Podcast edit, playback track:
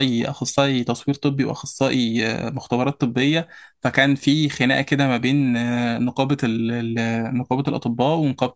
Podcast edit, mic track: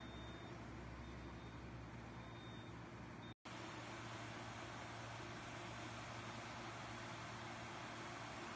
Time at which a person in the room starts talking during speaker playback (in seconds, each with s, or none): none